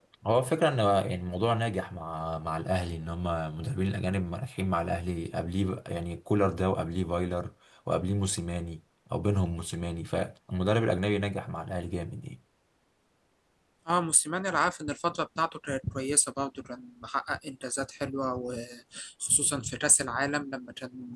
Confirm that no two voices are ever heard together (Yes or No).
Yes